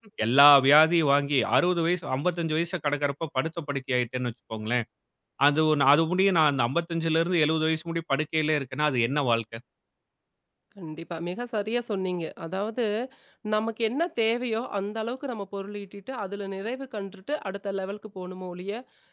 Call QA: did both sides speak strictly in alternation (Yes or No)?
Yes